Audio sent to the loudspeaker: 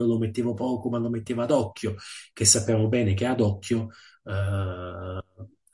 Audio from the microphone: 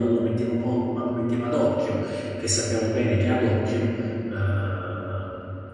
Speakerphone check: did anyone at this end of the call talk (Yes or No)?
No